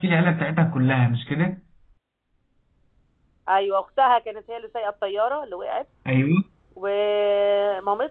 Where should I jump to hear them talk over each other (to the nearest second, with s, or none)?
none